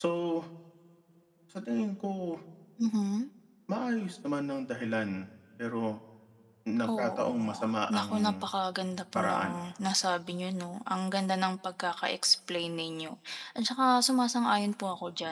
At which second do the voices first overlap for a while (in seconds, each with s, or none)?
6.9 s